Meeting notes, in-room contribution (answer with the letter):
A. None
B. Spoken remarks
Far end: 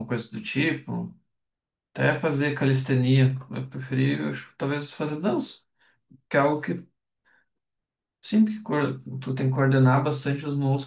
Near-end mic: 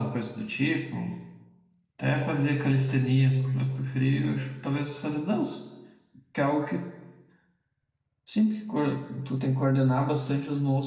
A